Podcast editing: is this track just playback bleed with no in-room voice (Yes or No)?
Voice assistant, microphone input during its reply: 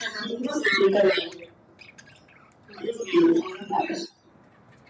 Yes